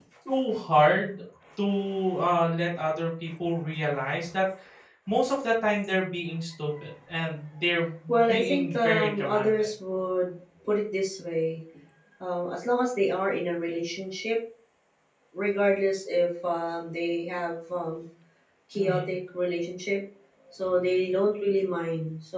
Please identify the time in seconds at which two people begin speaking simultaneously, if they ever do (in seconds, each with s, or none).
8.1 s